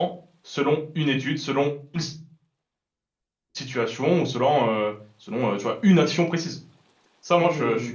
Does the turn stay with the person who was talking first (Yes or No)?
No